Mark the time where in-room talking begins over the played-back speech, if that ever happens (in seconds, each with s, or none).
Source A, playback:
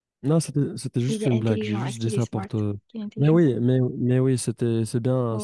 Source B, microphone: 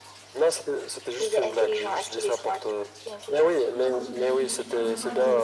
3.7 s